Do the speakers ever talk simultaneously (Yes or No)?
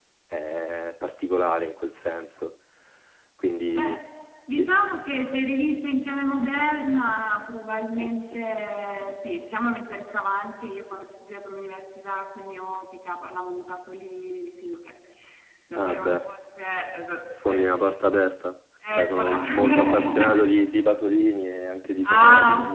Yes